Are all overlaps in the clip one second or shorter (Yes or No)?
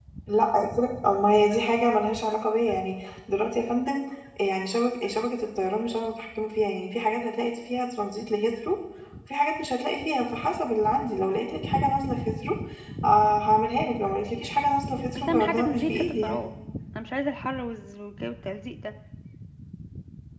No